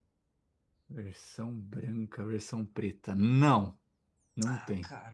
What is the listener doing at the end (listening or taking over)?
taking over